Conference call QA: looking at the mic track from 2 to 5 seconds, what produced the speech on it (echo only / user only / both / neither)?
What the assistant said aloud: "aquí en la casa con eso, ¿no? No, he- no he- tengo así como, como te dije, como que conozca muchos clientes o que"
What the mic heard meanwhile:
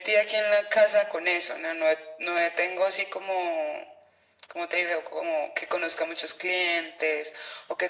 echo only